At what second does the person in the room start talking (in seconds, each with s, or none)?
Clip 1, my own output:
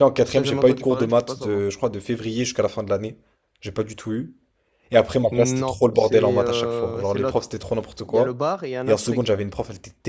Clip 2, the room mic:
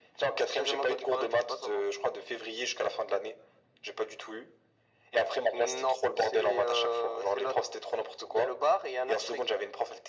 none